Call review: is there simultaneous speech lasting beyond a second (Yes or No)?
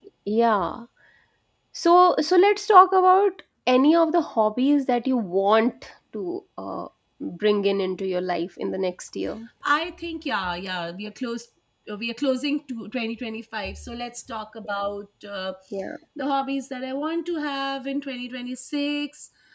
No